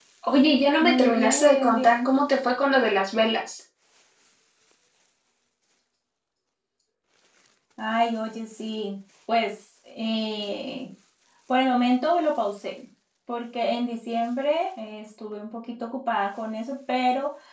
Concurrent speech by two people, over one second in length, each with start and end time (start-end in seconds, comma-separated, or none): 0.8-2.1